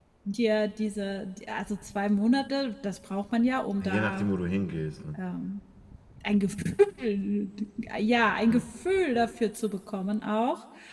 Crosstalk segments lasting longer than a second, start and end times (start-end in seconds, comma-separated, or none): none